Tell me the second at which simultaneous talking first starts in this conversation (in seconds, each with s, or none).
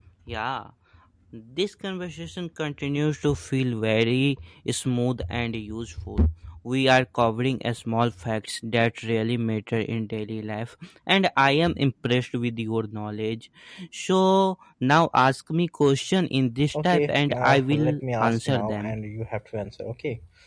16.7 s